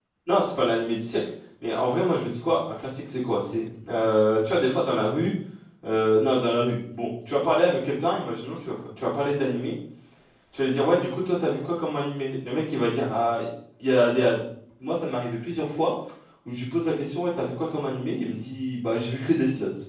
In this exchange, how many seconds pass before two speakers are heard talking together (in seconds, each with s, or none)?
none